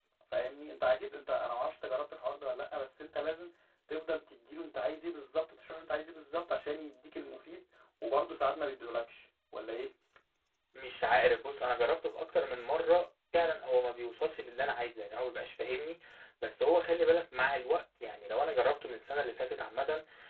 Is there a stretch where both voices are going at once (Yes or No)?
No